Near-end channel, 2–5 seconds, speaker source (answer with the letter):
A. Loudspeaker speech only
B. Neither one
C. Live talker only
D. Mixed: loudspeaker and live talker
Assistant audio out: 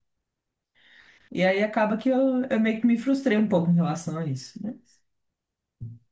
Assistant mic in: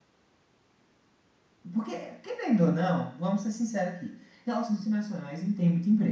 C